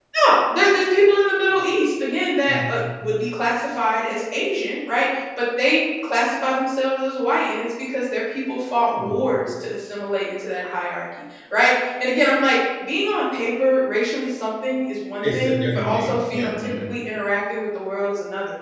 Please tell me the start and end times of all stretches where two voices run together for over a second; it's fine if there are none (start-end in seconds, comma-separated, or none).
15.2-16.8